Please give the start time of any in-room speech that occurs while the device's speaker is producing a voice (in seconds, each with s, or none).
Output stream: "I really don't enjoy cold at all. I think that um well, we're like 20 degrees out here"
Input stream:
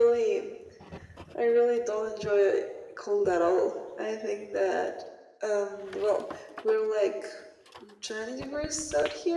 none